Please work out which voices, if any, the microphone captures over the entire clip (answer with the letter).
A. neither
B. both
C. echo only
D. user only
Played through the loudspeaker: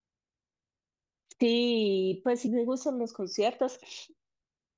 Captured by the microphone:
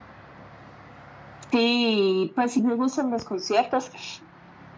C